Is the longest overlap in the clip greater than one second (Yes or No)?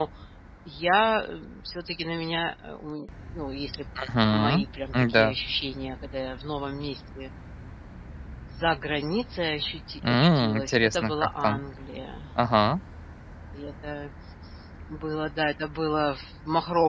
Yes